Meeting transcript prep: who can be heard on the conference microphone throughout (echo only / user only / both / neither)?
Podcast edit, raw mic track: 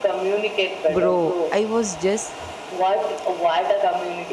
both